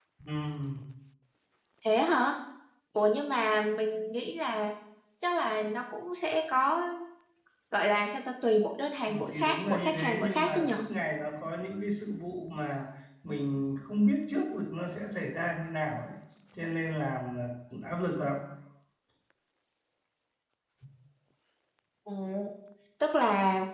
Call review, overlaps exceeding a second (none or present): present